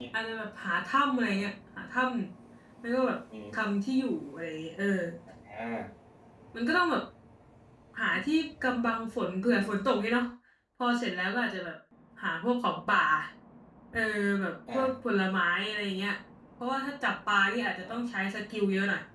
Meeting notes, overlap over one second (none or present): none